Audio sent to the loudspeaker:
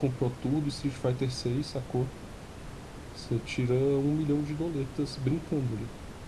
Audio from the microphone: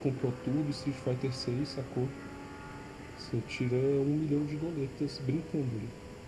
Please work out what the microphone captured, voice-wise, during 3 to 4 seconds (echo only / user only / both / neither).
echo only